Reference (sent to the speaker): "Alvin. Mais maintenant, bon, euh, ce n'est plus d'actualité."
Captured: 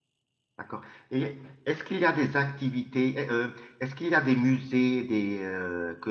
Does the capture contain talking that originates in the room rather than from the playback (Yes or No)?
Yes